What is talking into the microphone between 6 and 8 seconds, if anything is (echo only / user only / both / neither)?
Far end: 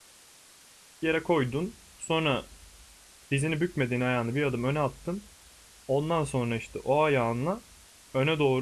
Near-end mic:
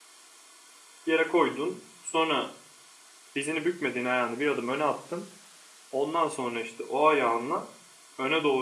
echo only